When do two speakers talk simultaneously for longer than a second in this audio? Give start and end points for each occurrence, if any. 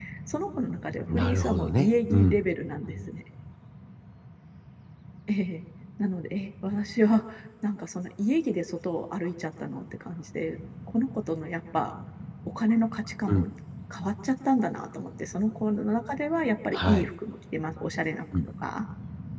1.1-2.4

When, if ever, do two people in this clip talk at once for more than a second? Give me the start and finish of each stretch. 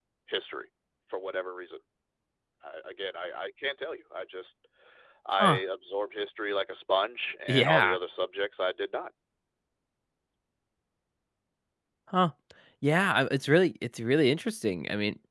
none

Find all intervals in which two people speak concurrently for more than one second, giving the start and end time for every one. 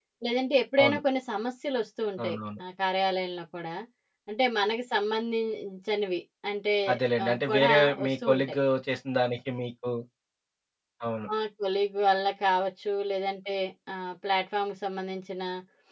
7.2-8.6

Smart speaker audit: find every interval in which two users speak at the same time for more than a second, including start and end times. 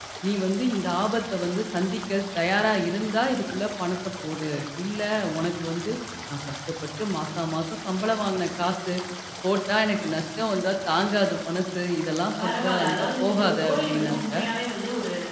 12.4-14.2

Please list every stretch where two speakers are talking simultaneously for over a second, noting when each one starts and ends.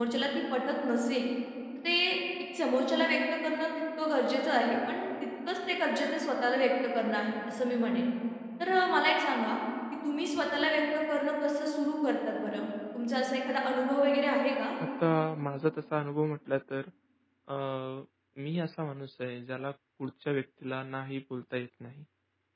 none

